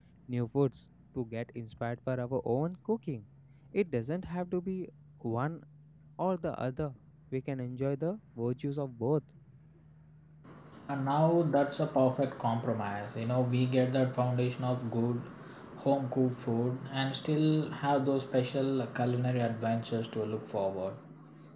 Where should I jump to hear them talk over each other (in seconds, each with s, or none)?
none